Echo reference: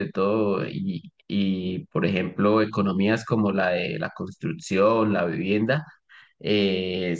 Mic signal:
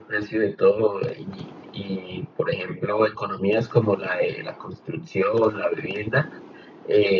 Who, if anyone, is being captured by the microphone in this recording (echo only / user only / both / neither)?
echo only